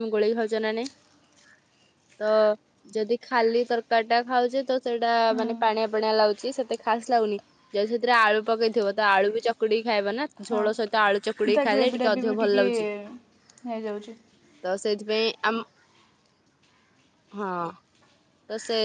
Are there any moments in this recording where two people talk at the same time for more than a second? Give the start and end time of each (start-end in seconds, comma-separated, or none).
11.6-12.8